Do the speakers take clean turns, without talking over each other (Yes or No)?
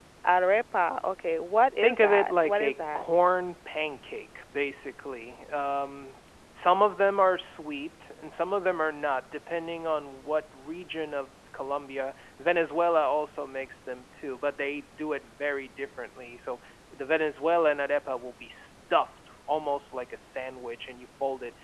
No